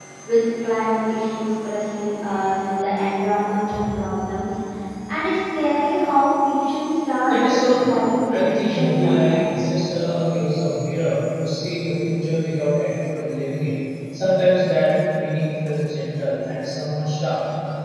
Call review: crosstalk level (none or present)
present